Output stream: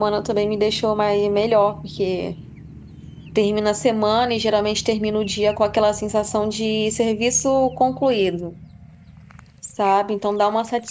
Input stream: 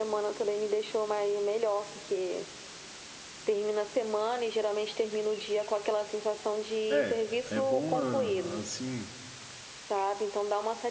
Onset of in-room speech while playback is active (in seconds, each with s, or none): 6.9 s